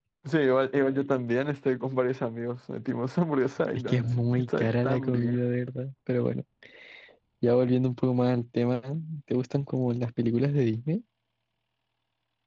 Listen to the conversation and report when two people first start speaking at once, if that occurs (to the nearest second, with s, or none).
4 s